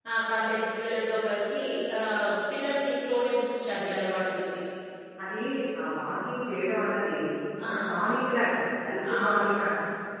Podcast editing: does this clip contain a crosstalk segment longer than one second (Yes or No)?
No